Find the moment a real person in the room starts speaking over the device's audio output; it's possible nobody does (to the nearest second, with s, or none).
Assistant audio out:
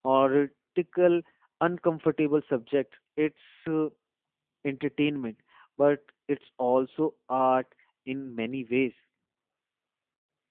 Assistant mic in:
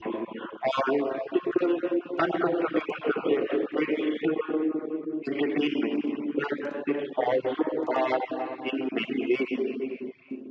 none